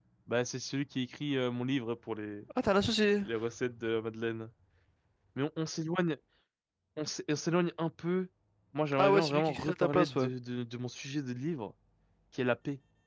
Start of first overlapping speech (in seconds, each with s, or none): 9.0 s